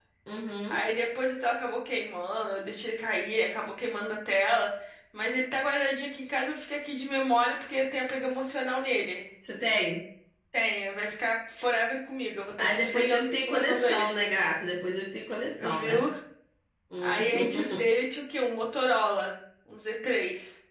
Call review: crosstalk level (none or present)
present